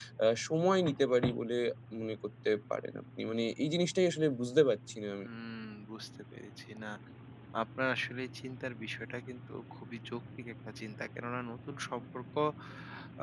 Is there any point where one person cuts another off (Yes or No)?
No